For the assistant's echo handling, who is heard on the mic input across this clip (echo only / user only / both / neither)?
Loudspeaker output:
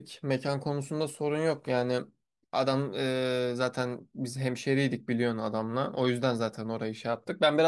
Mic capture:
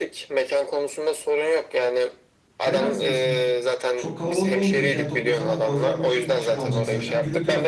both